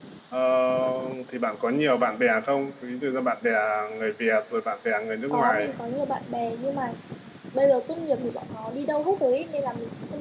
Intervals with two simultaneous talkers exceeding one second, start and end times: none

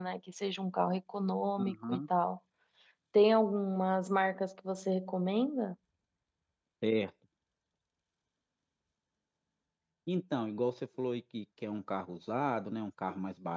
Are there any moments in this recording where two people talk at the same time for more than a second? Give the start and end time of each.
none

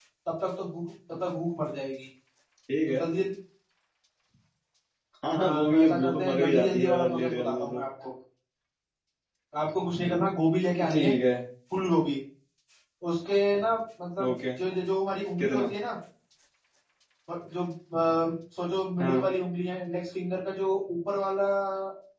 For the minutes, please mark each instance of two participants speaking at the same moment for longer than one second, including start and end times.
5.3-7.8

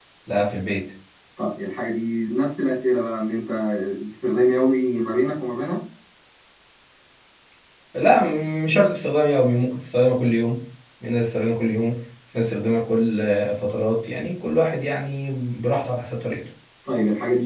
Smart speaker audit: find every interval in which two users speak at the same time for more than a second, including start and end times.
none

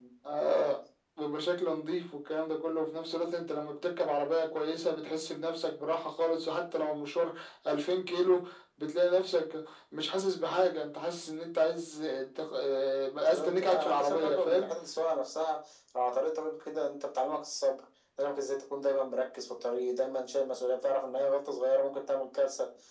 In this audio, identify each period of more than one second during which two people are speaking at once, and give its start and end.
13.2-14.7

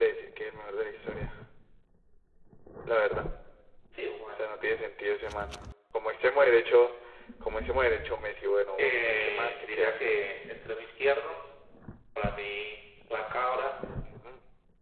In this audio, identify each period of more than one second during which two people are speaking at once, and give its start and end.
8.8-10.1

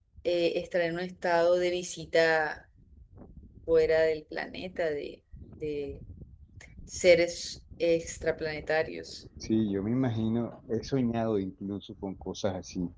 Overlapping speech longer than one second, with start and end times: none

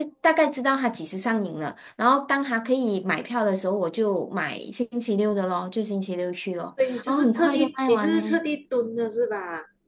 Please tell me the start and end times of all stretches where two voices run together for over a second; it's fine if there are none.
6.9-8.4

